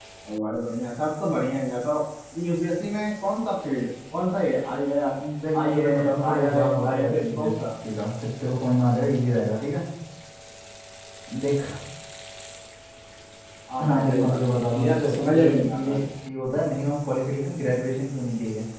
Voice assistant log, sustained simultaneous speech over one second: present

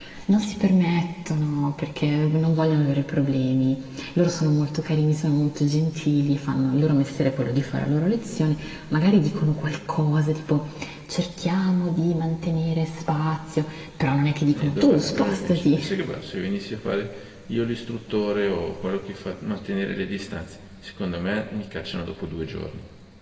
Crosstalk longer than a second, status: present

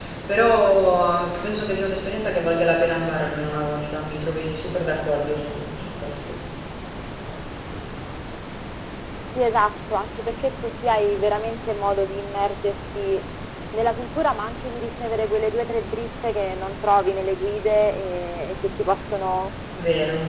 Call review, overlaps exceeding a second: none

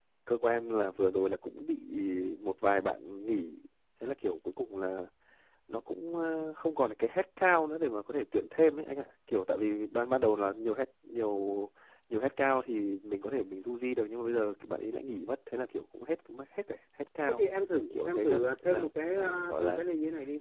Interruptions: present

